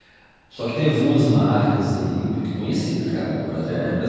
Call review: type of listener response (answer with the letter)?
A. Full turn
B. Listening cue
B